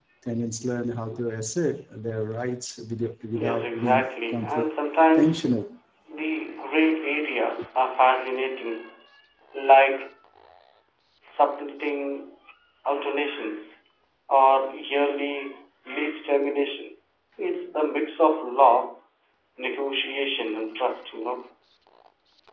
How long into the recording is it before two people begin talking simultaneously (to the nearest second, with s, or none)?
3 s